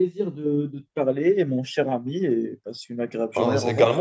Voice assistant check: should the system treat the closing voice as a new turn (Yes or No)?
Yes